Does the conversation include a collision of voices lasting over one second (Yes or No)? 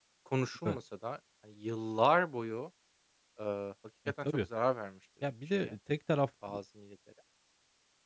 No